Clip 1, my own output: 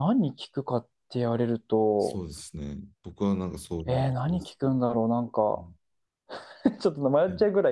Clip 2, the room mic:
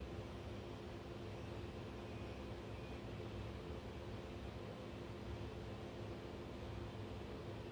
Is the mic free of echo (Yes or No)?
Yes